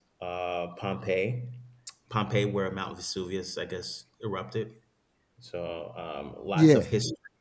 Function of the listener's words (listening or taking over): listening